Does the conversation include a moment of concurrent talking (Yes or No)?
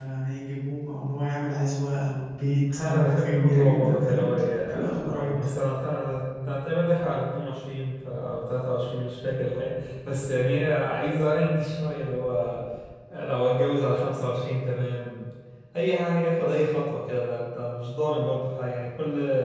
Yes